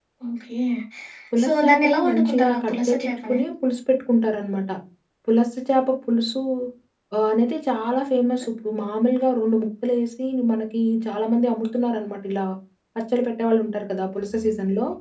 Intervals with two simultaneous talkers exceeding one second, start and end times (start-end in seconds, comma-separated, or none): 1.4-3.4